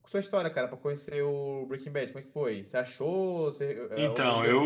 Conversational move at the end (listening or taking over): taking over